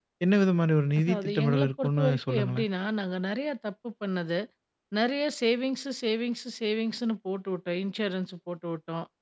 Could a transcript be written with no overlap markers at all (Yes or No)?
No